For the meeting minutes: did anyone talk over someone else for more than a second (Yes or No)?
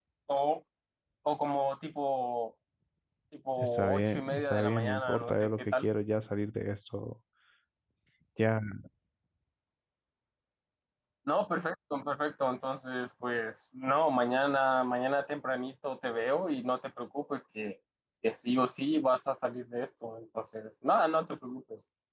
Yes